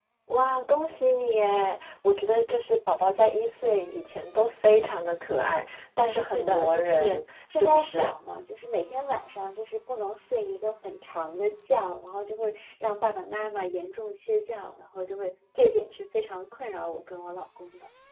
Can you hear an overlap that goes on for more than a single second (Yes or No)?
Yes